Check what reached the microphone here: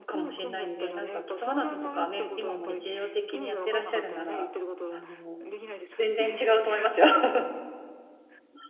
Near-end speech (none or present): present